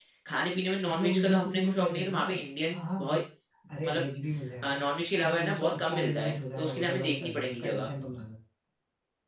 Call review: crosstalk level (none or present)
present